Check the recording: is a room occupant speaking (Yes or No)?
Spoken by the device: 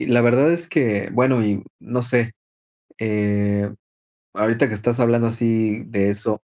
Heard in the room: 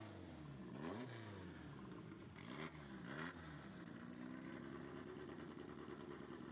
No